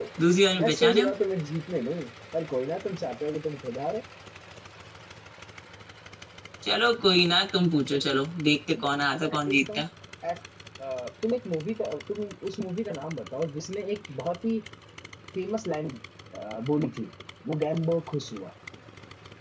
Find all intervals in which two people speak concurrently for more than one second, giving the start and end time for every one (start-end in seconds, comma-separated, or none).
none